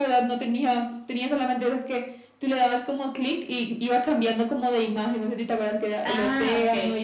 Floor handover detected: Yes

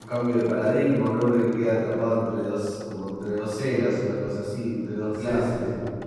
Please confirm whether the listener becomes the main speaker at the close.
Yes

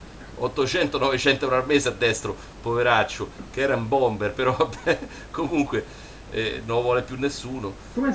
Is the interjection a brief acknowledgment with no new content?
No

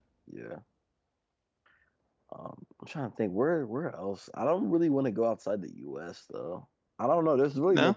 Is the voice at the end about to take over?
No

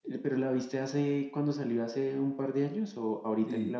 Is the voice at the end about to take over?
Yes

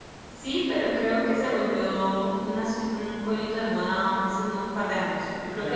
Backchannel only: Yes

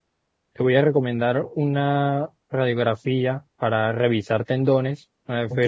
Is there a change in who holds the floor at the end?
No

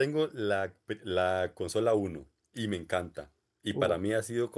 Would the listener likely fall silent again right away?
Yes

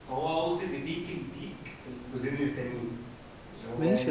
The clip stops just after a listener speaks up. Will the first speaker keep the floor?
No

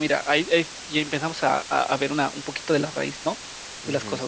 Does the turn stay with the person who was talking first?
Yes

